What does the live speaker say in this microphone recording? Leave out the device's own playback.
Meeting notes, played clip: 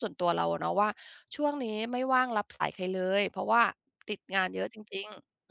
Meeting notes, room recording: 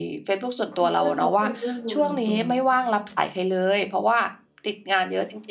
คุณเพื่อนเขาเป็นเพื่อนคุณ คุณ

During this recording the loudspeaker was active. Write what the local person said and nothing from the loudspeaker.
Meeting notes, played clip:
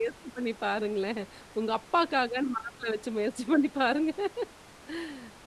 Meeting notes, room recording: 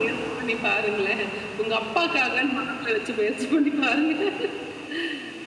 none

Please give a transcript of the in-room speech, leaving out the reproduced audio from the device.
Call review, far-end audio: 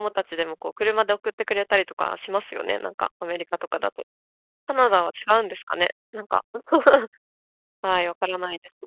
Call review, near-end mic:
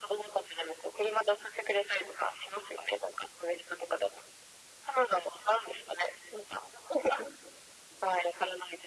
none

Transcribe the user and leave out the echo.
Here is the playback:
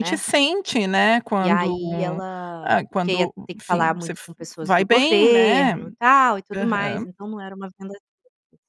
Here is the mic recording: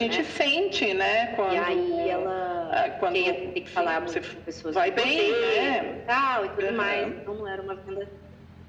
none

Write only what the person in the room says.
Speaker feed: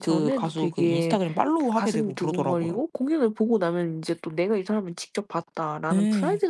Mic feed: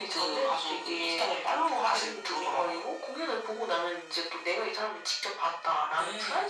none

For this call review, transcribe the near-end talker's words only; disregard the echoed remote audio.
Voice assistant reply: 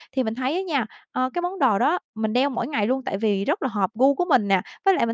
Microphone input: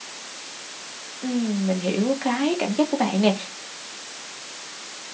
Ừm, mình hiểu cái cảm giác của bạn nè,

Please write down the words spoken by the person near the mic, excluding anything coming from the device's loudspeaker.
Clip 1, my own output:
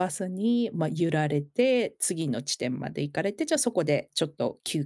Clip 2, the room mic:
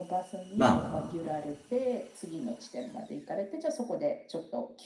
まあ、

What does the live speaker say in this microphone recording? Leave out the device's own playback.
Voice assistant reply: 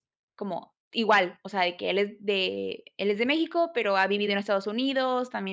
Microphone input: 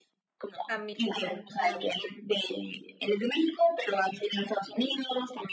A mi también me gustaba mucho.

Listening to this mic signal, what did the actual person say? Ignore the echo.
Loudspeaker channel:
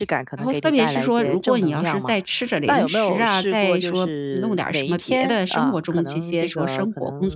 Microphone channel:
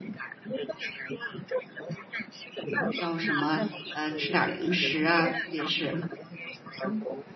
要什么，呃，吃点儿零食啊，特别是

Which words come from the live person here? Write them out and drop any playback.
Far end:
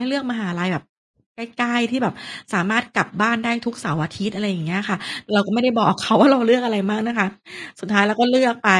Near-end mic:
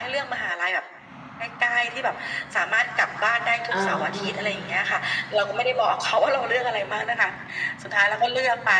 อา ๆ ๆ

